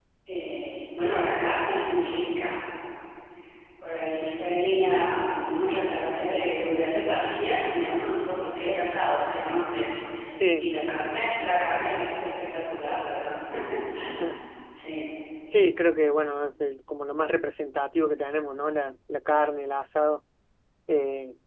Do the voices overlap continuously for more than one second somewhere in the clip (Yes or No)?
No